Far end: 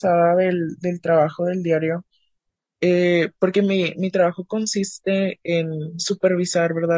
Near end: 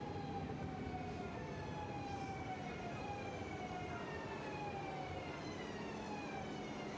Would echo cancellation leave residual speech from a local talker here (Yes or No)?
No